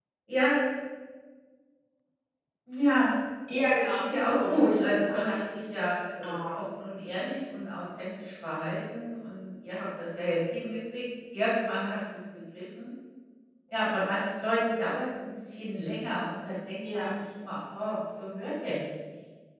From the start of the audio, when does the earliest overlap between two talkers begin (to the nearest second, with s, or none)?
4 s